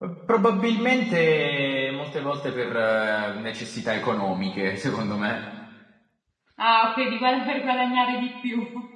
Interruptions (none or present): none